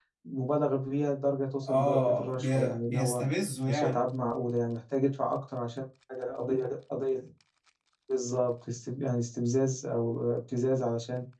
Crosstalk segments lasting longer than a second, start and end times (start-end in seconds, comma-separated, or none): 1.7-3.2